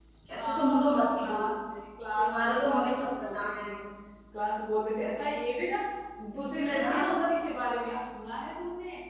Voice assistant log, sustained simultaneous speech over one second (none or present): present